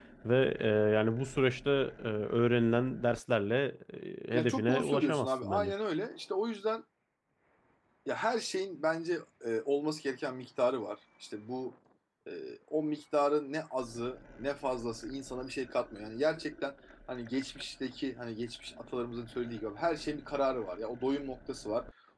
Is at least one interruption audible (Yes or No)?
Yes